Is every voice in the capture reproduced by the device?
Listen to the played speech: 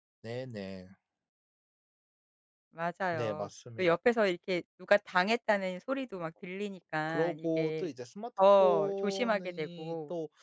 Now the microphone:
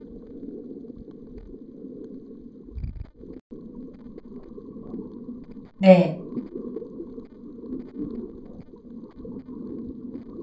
No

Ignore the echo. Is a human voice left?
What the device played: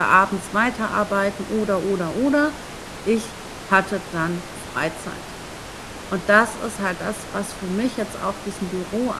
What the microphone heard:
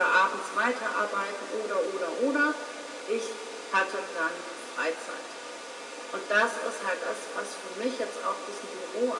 No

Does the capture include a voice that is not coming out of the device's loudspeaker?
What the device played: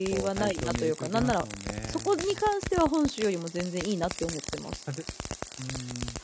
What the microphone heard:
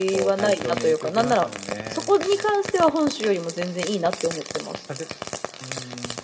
No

